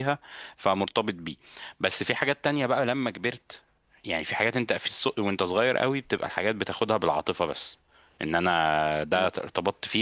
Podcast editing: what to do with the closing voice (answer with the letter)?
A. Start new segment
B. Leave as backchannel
B